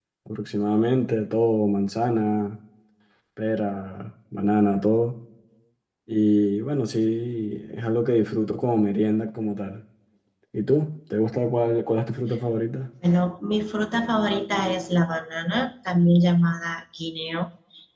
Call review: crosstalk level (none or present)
none